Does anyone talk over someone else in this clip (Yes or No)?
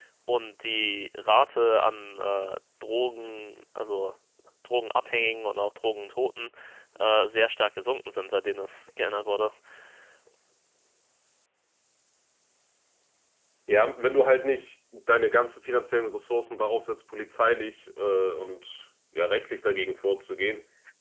No